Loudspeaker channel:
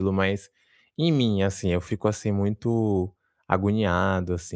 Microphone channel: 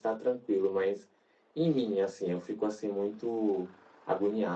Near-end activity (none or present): none